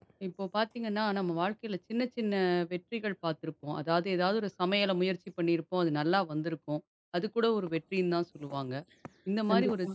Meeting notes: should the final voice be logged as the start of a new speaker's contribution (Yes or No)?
No